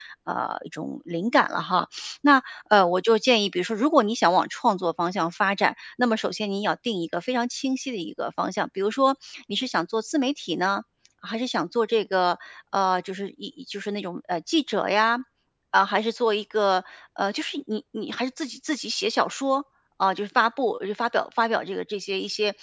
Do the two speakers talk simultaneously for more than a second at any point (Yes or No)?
No